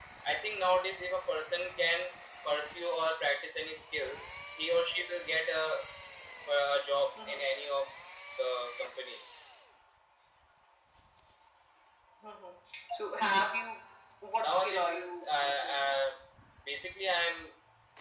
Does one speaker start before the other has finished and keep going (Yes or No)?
Yes